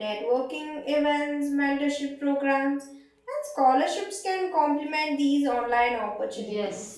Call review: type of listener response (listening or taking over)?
taking over